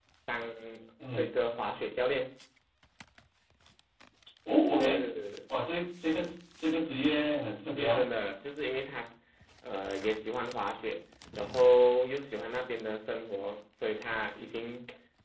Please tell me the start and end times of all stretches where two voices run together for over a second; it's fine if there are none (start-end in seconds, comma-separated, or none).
none